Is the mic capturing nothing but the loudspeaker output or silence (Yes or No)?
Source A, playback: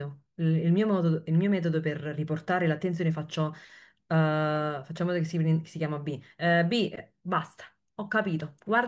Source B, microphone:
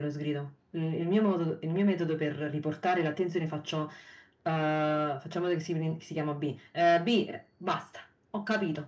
Yes